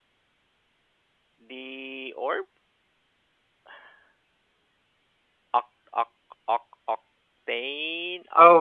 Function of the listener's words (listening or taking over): taking over